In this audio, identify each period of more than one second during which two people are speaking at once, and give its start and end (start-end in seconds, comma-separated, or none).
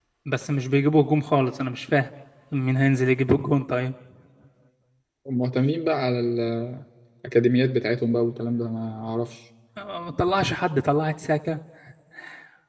none